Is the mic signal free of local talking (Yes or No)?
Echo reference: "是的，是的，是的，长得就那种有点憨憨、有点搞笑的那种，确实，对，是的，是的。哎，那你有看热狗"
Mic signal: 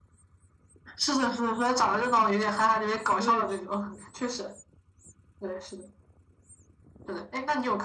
No